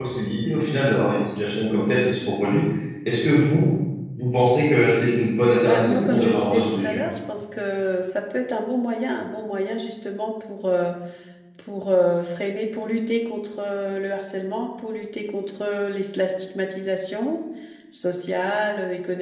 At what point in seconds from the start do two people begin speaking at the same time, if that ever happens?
5.6 s

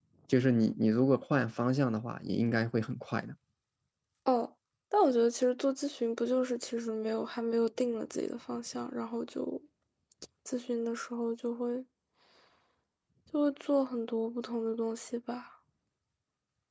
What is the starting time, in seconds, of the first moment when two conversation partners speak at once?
none

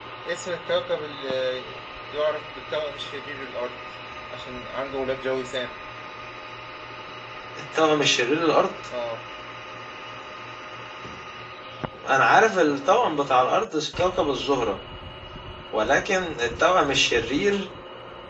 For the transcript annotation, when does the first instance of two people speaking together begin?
none

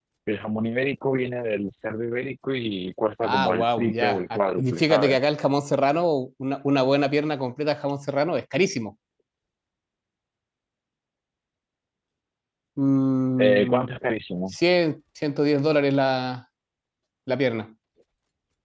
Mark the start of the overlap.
3.2 s

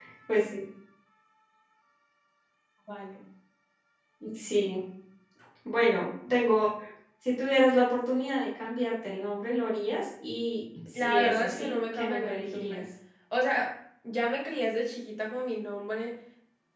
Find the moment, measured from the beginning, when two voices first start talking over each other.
10.8 s

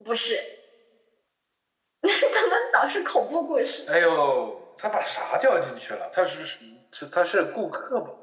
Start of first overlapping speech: none

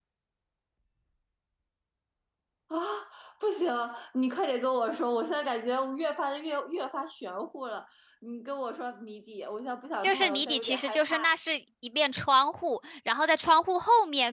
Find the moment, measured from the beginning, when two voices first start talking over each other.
10.0 s

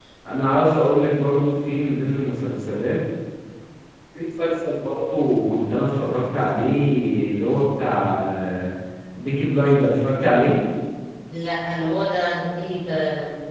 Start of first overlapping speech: none

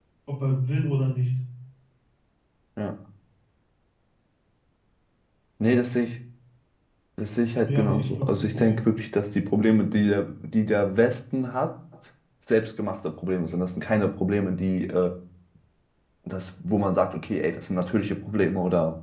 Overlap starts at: 7.6 s

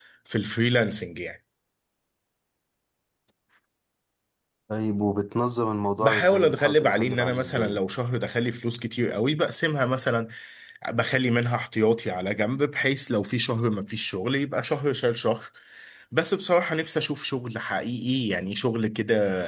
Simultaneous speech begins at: 6.0 s

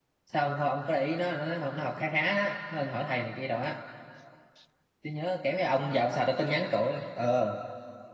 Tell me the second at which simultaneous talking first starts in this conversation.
none

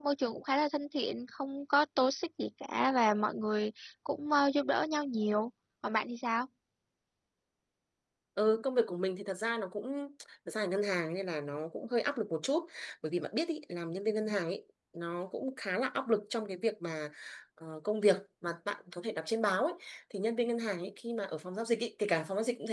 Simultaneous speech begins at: none

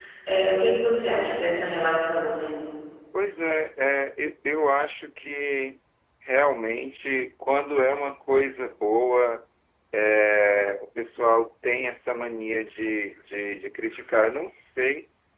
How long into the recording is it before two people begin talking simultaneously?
none

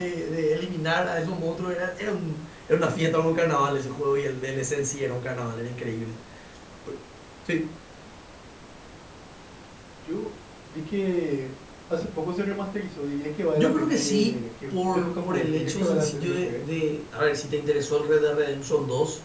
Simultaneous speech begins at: 13.6 s

